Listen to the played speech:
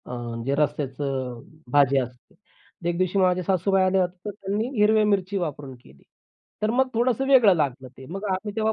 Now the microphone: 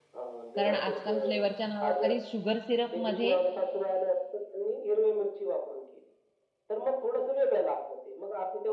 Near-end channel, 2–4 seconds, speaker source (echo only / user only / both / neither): both